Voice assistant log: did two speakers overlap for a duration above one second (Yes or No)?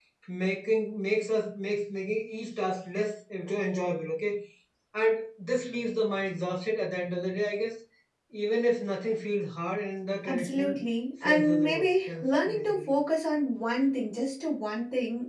Yes